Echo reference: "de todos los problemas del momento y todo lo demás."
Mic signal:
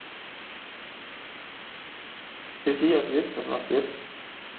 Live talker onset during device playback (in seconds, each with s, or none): 2.6 s